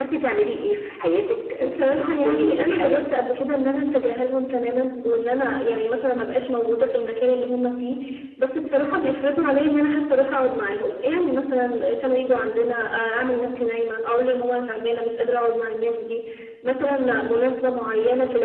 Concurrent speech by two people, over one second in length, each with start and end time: 1.6-3.1

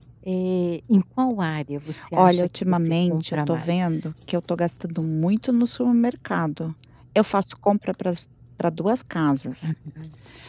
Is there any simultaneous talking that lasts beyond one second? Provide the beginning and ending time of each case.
2.1-4.1

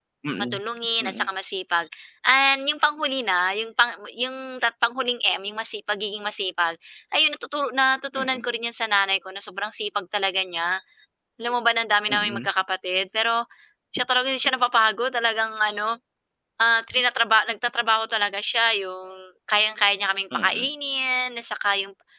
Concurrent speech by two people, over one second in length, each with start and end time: none

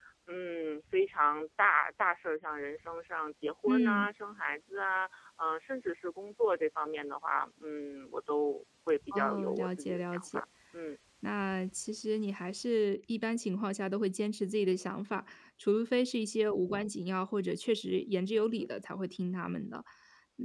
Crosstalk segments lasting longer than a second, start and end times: 9.1-10.4

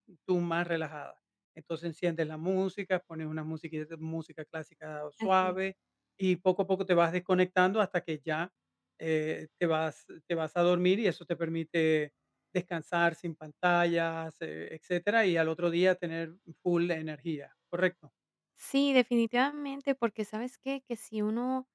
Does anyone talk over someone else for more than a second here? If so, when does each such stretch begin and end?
none

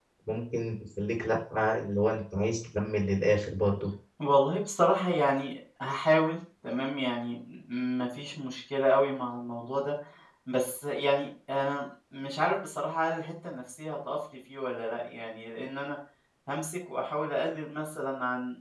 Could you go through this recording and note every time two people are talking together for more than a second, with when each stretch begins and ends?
none

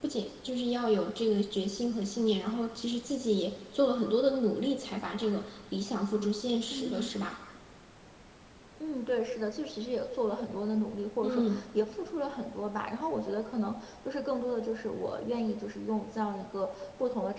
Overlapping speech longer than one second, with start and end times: none

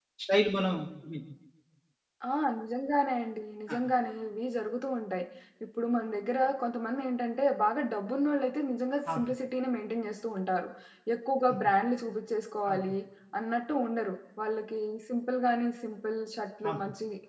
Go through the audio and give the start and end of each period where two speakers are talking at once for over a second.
none

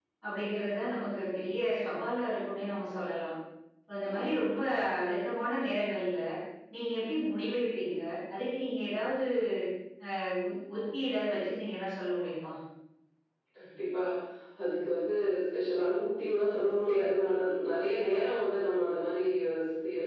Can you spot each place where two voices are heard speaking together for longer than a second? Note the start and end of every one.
none

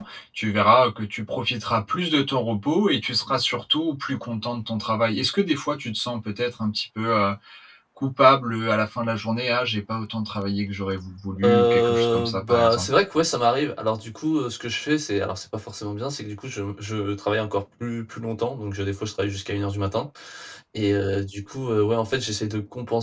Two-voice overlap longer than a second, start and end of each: 11.4-12.9

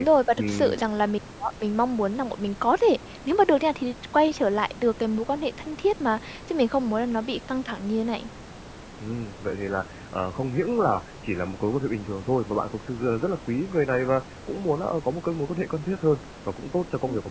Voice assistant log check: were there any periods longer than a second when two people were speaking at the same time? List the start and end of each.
none

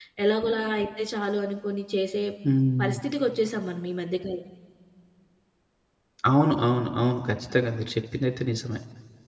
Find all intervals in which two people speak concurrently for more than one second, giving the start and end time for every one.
none

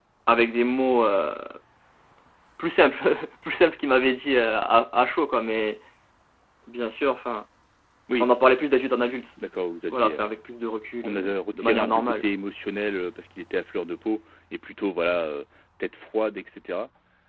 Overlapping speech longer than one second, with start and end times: 11.0-12.2

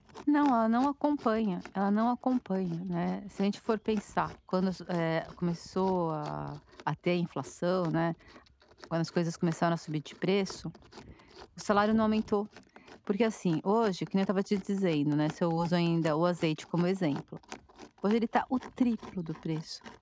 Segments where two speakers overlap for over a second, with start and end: none

